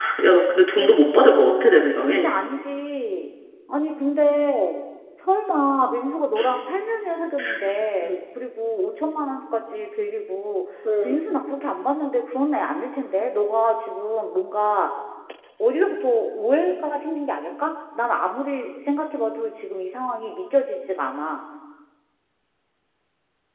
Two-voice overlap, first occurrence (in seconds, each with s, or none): 0.8 s